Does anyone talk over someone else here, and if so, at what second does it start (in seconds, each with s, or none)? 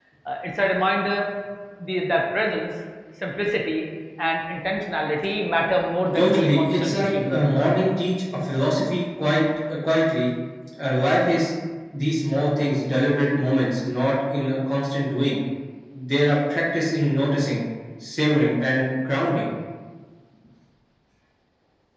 6.2 s